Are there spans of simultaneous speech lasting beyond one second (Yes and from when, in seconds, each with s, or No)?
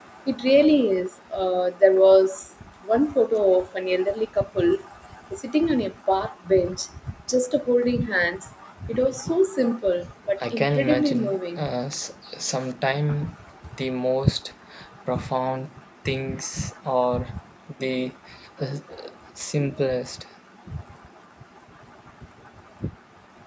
Yes, from 10.5 s